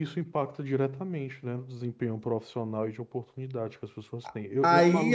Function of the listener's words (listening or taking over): taking over